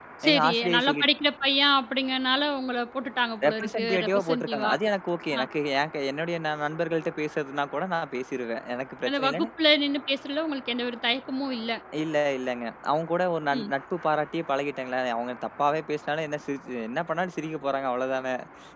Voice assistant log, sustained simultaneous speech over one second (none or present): present